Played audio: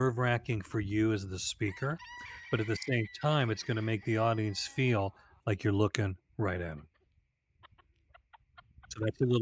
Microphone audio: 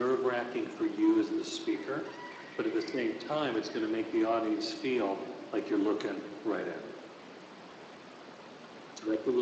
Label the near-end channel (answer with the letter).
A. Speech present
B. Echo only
B